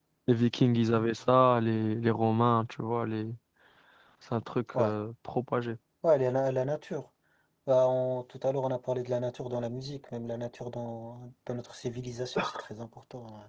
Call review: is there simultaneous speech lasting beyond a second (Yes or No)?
No